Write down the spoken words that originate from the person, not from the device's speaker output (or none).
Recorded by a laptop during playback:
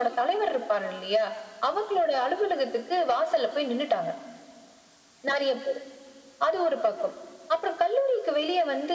none